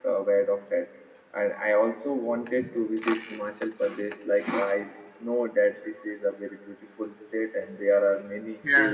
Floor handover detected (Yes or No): No